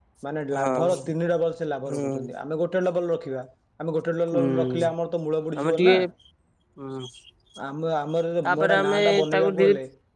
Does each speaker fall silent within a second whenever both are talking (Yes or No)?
No